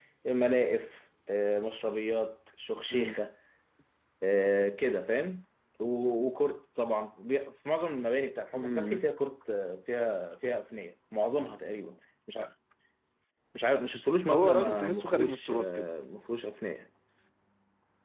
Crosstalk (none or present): present